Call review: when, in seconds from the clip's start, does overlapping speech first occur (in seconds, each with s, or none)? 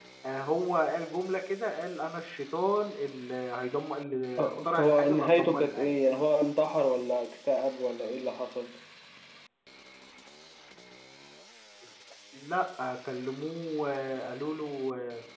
4.4 s